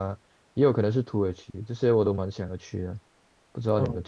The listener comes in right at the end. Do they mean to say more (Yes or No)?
Yes